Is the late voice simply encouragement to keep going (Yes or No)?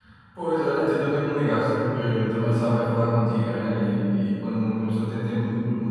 Yes